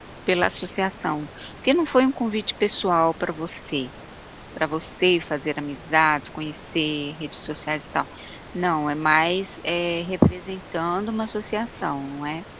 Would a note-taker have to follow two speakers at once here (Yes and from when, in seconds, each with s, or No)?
No